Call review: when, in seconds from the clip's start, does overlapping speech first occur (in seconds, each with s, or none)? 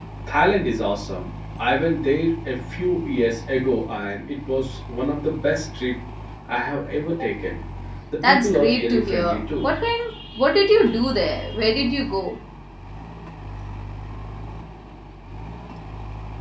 8.2 s